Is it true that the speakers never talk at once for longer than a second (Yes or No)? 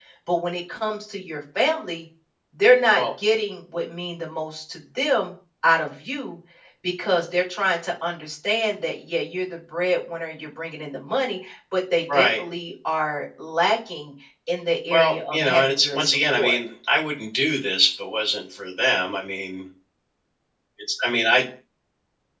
No